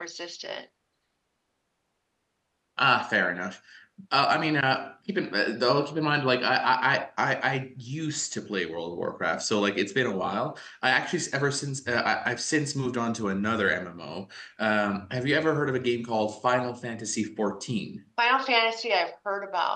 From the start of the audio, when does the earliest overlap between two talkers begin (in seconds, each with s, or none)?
none